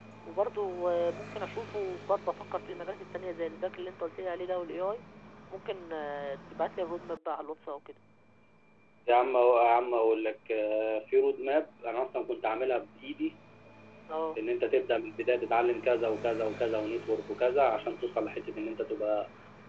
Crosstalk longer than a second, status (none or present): none